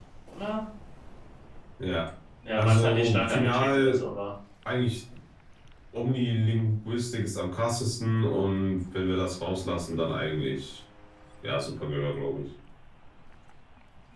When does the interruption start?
2.6 s

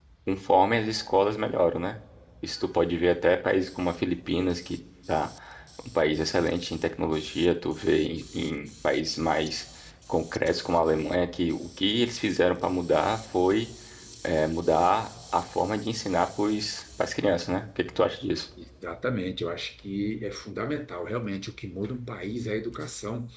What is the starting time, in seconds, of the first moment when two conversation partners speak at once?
none

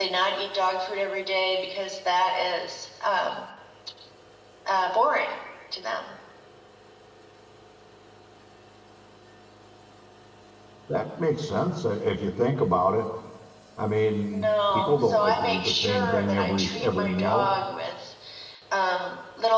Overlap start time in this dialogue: 14.3 s

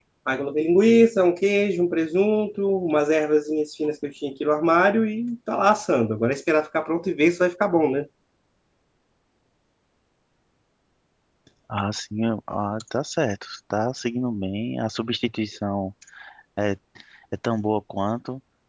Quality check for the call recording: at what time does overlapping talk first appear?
none

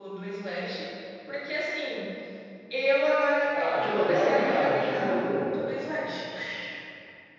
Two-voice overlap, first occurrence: 3.5 s

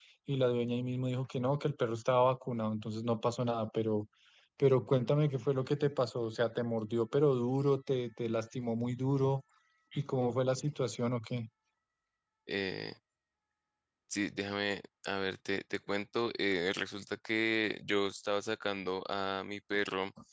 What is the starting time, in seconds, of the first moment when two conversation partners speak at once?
none

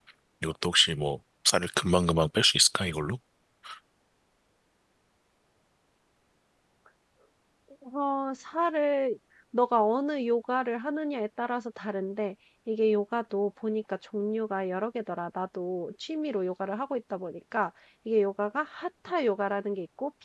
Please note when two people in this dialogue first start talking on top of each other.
none

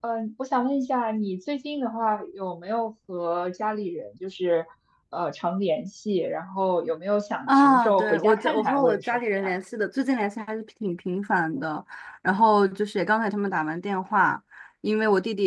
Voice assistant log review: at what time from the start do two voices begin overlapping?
7.5 s

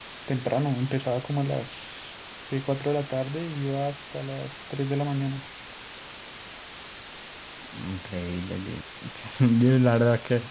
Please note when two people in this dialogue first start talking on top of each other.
none

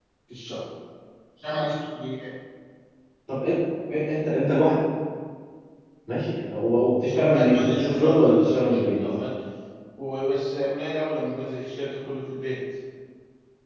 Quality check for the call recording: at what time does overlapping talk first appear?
7.1 s

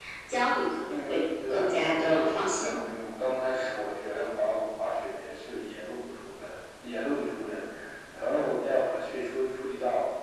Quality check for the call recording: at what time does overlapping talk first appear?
0.5 s

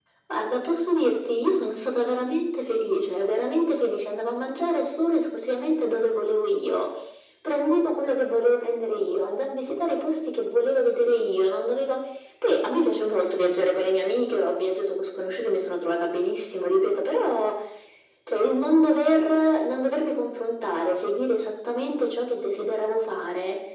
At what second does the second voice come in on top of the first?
none

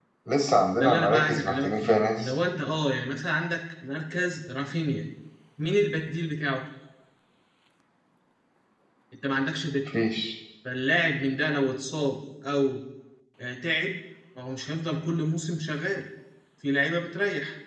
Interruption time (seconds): 0.8 s

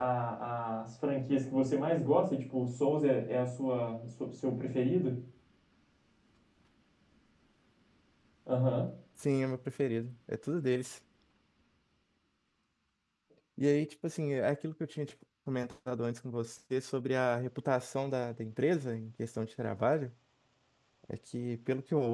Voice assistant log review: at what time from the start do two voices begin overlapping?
none

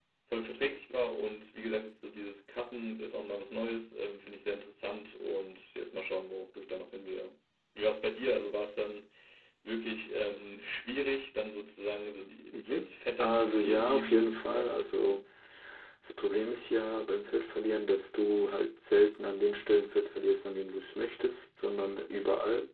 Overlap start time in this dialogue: 12.5 s

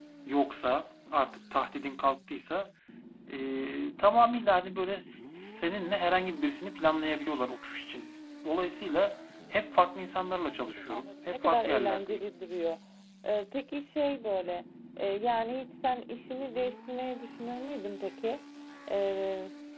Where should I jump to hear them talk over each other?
10.5 s

